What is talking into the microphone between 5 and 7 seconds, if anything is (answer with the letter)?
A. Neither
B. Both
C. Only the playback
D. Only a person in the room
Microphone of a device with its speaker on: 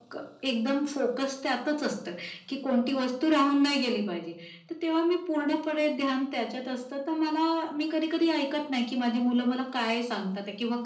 C